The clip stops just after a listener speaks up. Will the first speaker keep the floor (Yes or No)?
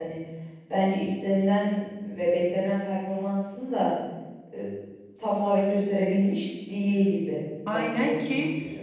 No